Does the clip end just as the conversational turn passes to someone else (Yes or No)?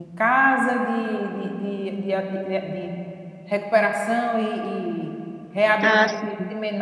No